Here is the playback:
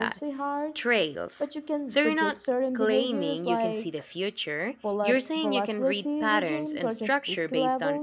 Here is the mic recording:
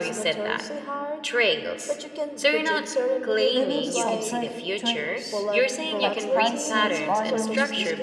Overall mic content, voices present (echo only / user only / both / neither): both